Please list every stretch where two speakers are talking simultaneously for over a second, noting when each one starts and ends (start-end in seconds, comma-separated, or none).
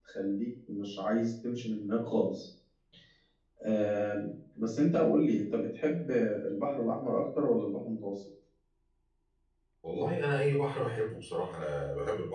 none